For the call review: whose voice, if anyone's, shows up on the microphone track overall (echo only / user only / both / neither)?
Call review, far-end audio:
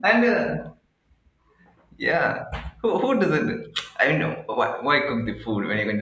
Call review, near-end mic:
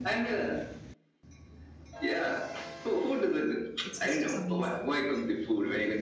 both